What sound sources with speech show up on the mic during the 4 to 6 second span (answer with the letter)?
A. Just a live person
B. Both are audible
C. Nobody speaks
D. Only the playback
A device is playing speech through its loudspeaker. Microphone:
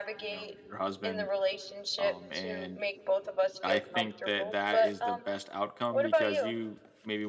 B